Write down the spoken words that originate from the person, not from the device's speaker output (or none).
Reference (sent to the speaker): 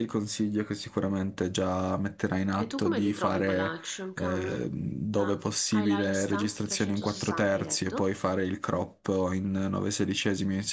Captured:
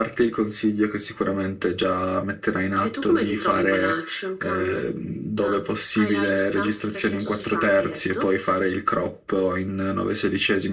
none